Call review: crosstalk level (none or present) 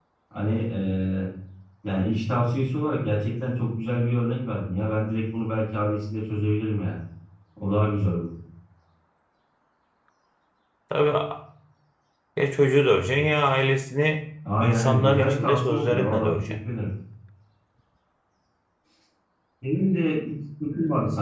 present